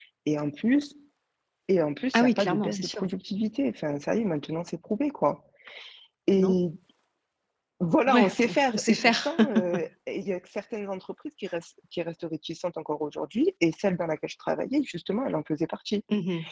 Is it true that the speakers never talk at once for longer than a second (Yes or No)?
No